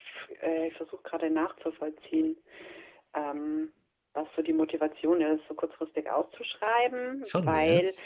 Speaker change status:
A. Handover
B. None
B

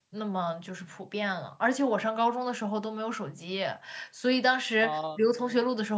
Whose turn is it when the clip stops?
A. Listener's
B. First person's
B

